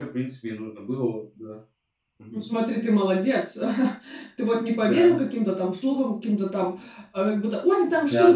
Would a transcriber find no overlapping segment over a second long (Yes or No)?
Yes